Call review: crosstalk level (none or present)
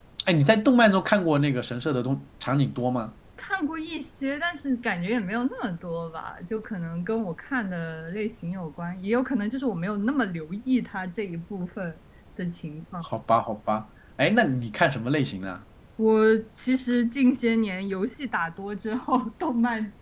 none